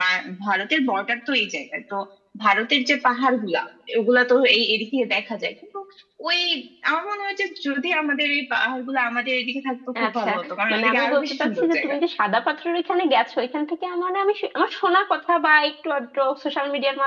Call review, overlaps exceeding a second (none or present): present